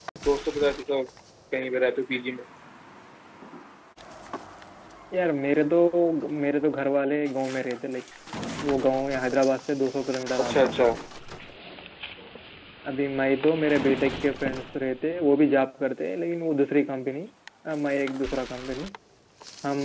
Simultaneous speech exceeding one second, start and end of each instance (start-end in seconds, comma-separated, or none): none